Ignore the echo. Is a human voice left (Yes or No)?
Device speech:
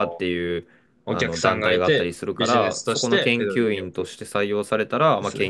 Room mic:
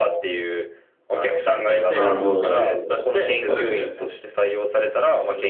Yes